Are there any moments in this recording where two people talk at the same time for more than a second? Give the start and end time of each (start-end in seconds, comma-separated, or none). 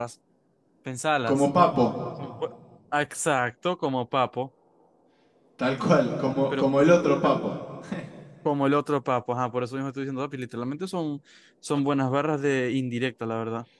none